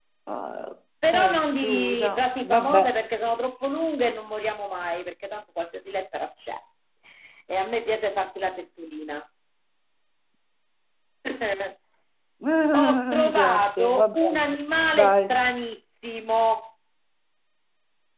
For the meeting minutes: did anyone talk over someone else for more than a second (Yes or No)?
Yes